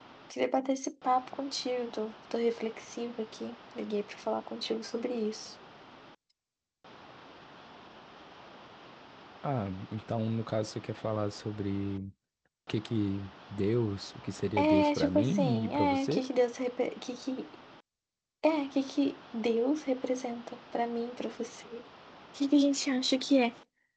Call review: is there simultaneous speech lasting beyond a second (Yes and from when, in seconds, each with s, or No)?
Yes, from 14.6 s